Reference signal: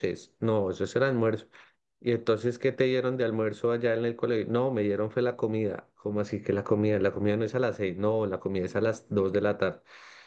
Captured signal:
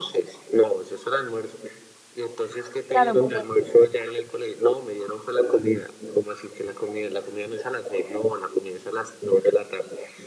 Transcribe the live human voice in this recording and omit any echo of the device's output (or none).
Claro, porque